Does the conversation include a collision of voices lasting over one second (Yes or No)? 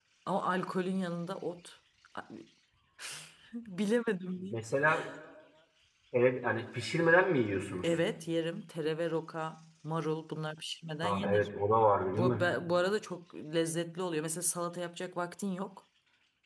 No